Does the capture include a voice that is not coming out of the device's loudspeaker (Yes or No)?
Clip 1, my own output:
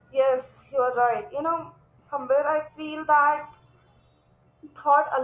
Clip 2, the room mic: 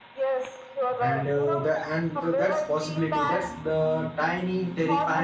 Yes